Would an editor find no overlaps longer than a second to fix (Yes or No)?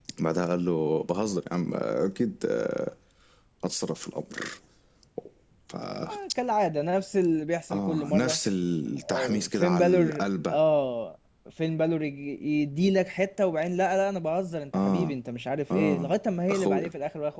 No